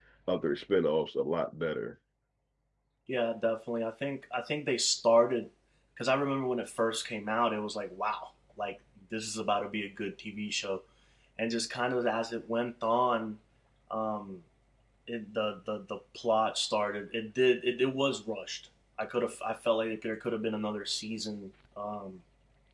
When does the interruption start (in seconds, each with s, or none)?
none